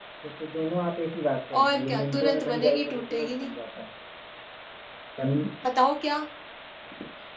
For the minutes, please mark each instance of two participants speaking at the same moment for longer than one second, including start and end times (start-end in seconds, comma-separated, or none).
1.6-3.5